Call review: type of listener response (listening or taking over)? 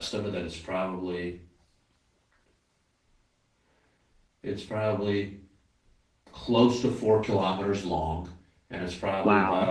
listening